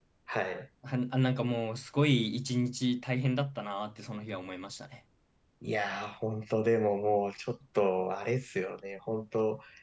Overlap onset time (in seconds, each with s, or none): none